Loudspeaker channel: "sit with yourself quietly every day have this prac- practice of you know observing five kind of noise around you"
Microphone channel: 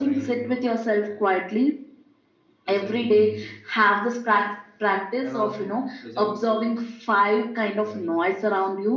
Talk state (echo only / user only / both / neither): both